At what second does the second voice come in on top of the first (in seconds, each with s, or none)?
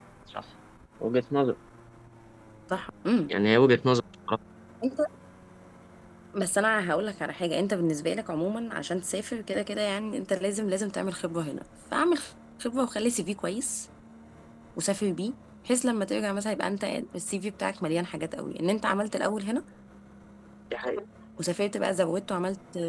none